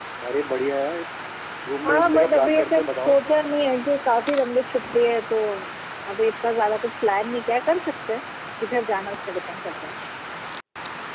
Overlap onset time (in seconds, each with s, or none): 1.8 s